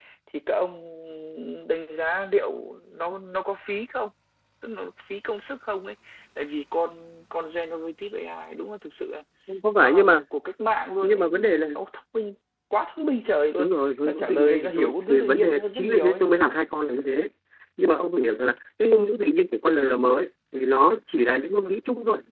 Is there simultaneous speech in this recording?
Yes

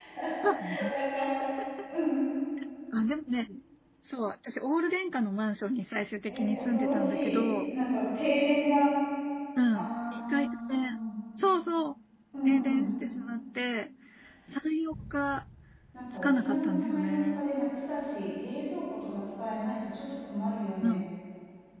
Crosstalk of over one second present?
Yes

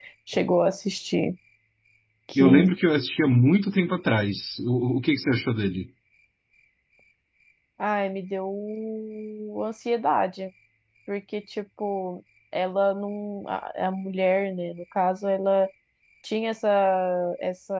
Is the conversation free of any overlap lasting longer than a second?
Yes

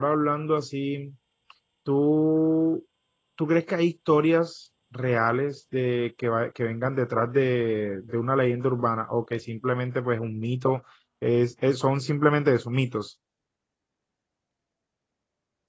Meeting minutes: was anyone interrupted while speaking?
No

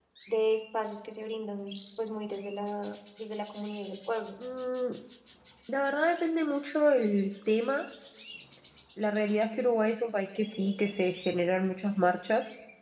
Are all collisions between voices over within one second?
Yes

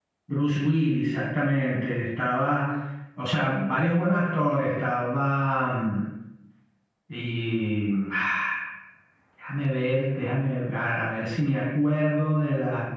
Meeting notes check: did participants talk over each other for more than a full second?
No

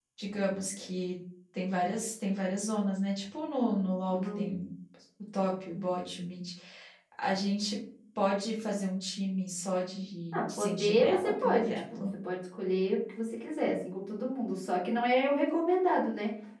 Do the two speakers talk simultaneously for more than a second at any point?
Yes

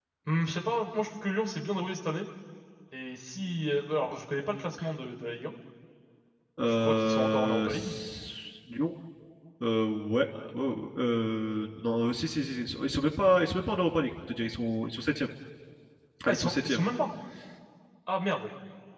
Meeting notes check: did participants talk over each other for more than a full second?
Yes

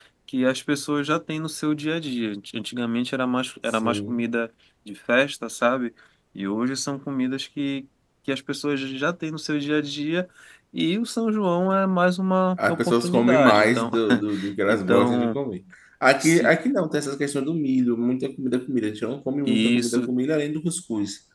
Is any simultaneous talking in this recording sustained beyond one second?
Yes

